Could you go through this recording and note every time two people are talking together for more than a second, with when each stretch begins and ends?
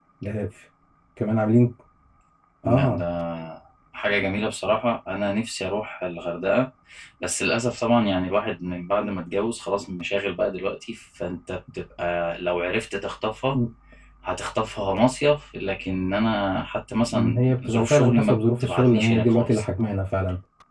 17.1-19.6

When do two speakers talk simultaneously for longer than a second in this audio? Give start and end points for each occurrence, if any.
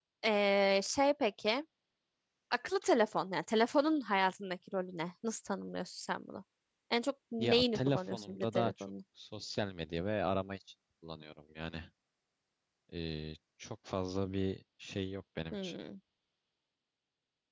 7.4-8.9

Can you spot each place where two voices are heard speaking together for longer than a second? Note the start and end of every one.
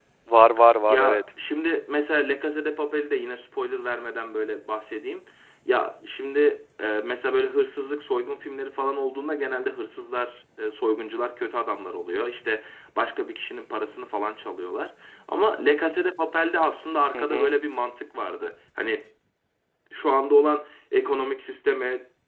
none

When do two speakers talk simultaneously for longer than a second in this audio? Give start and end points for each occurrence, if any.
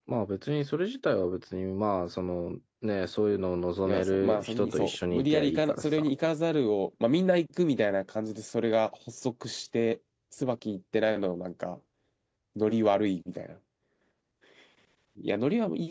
3.9-6.1

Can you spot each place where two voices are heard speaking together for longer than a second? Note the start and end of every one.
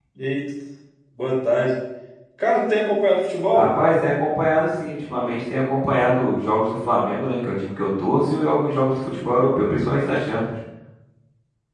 none

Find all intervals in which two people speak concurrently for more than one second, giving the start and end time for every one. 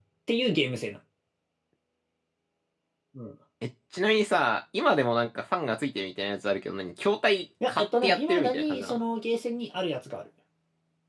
7.7-9.0

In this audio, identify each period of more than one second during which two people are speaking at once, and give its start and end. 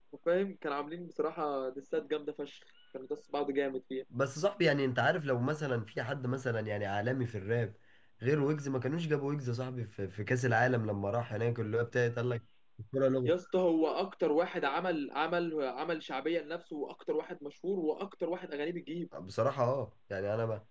none

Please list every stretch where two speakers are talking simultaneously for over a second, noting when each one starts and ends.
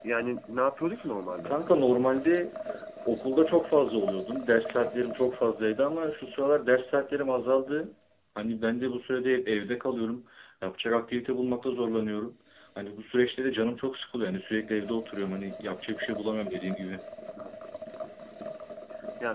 none

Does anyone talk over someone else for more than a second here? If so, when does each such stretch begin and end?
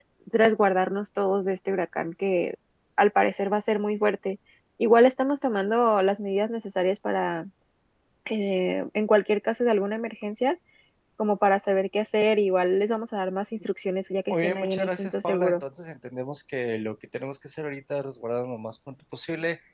14.3-15.6

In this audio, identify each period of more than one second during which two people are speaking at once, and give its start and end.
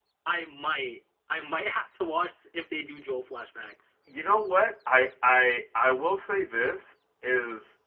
none

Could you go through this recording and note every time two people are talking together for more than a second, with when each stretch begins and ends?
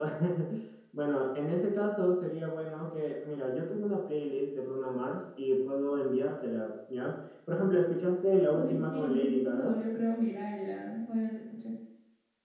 8.5-9.8

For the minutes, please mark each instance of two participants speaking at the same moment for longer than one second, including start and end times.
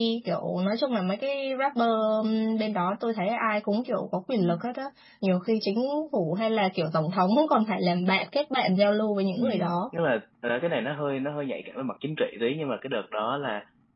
none

